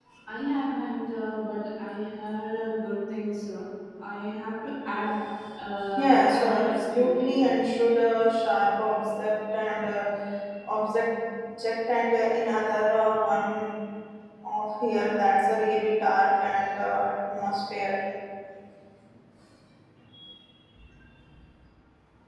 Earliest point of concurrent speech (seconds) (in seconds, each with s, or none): 6.0 s